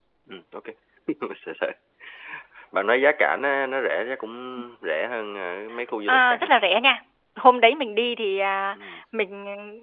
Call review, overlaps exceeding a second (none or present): none